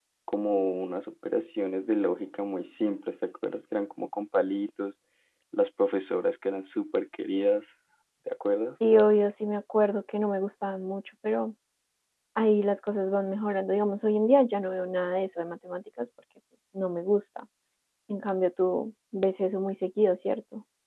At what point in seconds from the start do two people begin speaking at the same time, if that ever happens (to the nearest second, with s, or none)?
none